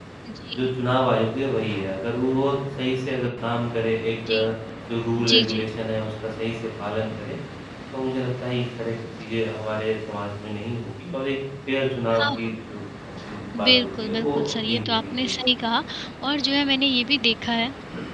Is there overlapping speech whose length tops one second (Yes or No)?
Yes